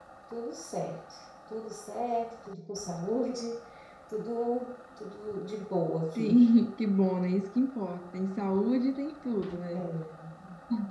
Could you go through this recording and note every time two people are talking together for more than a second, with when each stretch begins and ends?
none

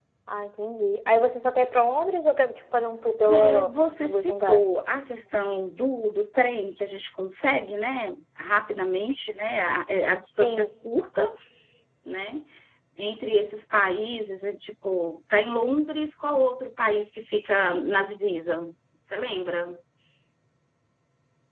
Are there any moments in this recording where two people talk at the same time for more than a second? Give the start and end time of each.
3.2-4.7

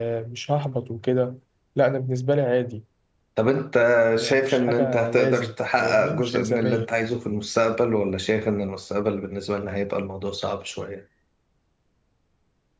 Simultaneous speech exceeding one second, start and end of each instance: 4.3-6.9

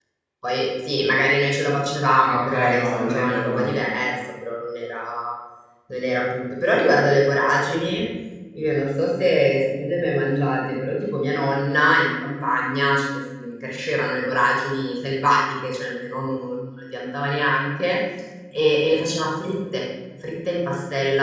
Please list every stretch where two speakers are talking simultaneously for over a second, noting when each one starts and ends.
2.2-3.8

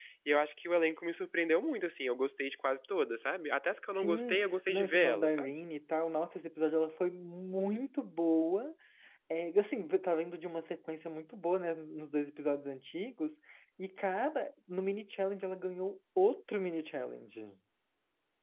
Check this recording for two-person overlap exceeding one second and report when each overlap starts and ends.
4.0-5.5

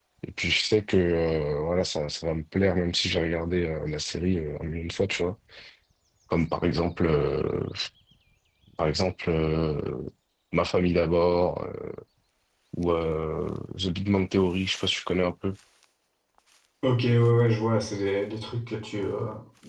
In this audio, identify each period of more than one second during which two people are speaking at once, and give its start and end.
none

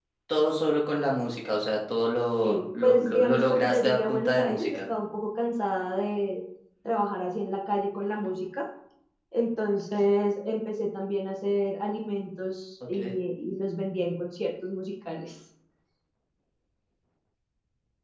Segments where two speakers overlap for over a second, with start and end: 2.4-4.8

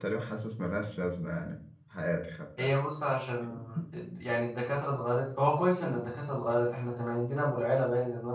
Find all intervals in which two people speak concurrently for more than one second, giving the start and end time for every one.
none

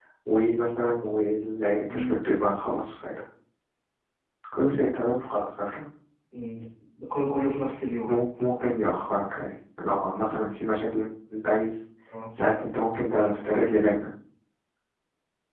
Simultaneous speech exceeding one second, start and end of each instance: none

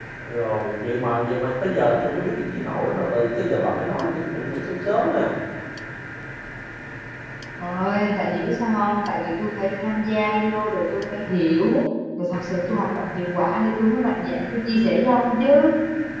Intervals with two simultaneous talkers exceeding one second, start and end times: none

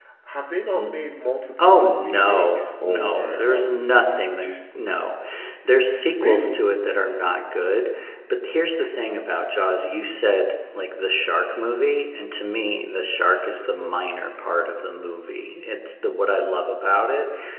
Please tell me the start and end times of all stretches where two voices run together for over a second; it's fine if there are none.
1.6-4.5

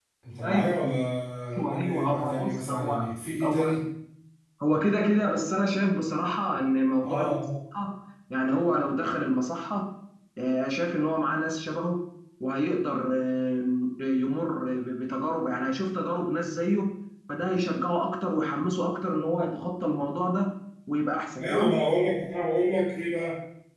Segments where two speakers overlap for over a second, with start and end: 1.6-3.0

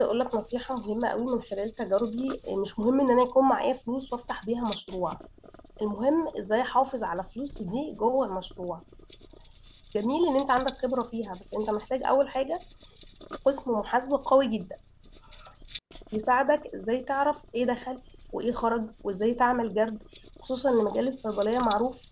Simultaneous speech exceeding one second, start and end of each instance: none

